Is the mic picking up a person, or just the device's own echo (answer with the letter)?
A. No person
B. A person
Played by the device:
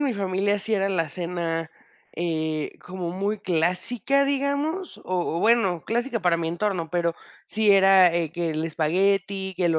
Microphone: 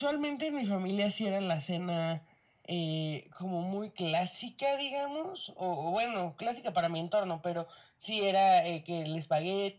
A